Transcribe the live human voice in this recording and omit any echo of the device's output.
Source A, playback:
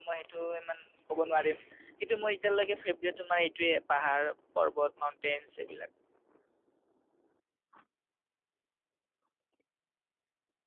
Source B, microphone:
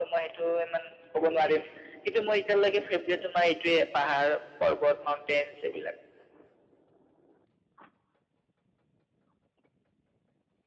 none

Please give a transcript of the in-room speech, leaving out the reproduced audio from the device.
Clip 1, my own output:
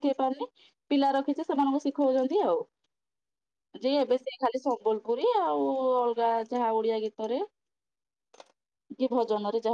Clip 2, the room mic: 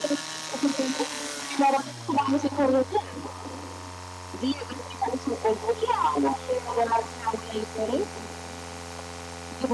none

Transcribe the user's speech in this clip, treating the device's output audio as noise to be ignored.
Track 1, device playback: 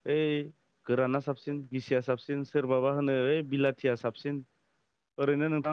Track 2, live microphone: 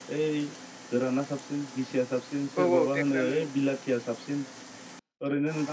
औ औ टेक्स आ नंबौ

